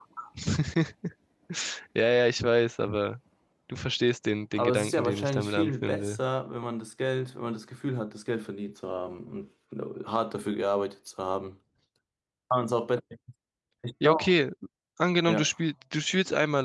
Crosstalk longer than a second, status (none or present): present